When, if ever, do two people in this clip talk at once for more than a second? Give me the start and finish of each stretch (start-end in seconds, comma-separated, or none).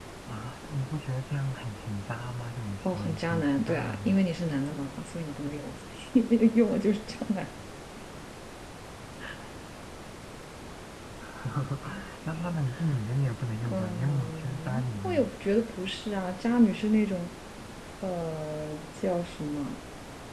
2.8-4.2, 13.7-15.3